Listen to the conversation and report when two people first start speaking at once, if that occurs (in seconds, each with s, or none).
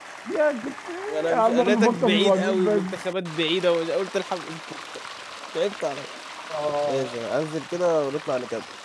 1.3 s